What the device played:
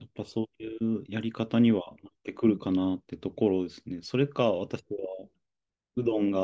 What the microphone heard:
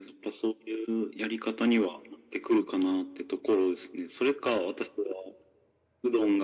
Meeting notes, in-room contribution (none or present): none